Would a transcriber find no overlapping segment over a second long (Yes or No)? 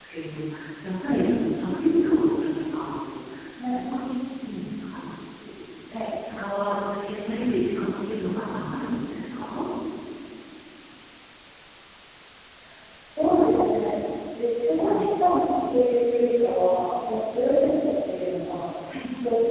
Yes